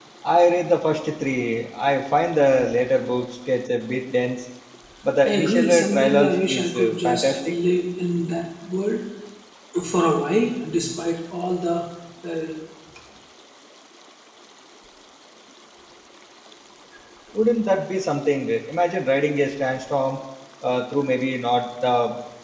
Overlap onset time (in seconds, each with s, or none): 5.2 s